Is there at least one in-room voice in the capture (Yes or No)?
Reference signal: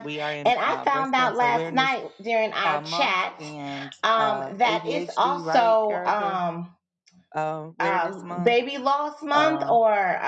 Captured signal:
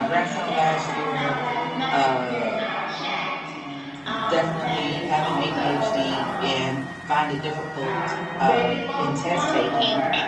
Yes